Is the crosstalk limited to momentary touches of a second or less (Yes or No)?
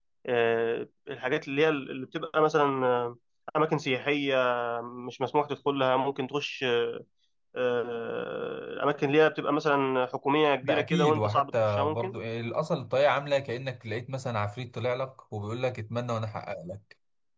No